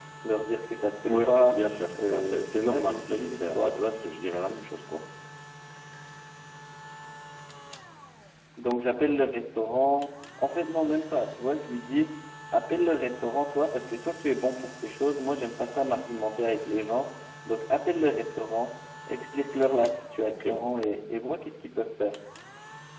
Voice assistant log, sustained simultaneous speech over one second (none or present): present